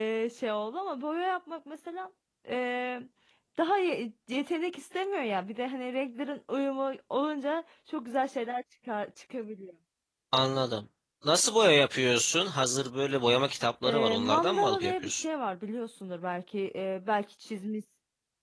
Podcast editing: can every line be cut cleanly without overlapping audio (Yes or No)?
No